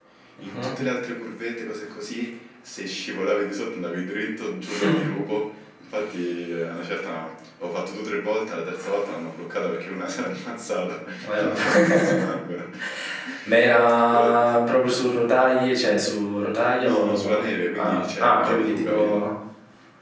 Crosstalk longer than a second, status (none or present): present